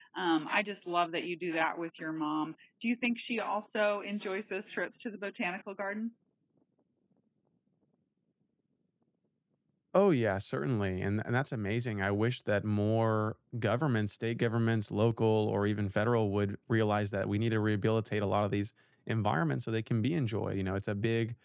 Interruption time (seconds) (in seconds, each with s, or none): none